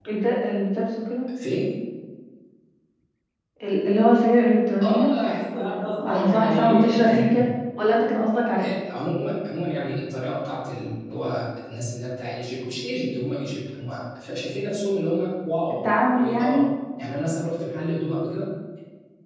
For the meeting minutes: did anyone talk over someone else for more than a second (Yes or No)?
Yes